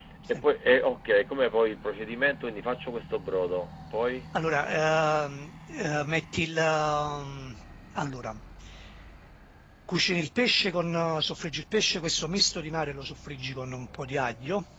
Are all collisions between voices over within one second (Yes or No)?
Yes